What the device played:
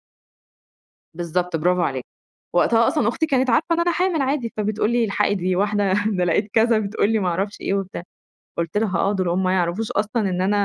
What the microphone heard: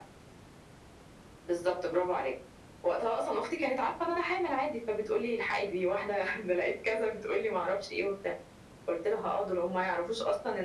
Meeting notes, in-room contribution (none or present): none